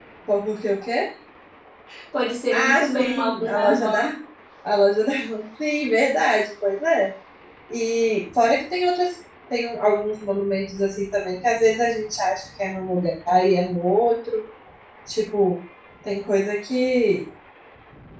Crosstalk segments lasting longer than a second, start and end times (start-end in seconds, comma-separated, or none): 2.5-4.1